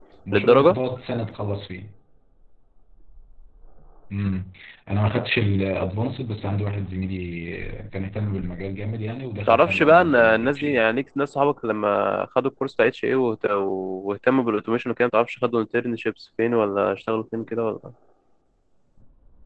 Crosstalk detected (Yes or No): Yes